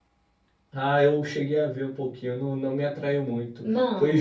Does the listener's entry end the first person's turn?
No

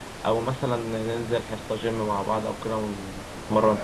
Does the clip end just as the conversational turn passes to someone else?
Yes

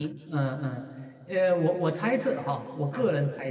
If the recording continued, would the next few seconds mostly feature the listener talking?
No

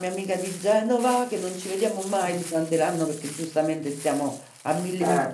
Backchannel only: Yes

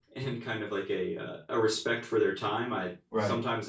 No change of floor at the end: Yes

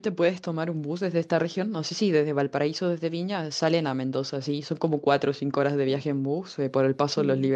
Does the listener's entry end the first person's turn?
No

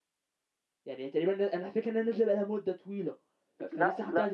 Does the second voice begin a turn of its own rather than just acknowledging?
Yes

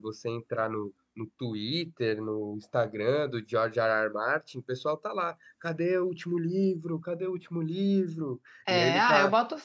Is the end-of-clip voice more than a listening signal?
Yes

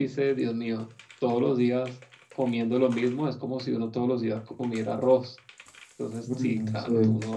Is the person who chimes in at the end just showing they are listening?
Yes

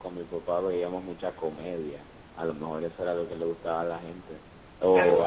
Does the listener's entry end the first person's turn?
Yes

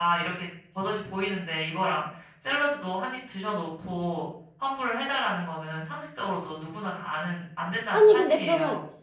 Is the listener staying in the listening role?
No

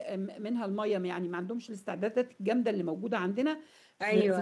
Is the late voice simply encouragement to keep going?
Yes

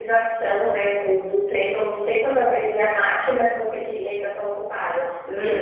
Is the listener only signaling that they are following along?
Yes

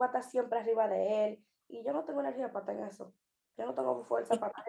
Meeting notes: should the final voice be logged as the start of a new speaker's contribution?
No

